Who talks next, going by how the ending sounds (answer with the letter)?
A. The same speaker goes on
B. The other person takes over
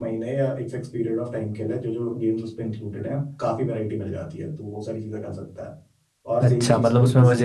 B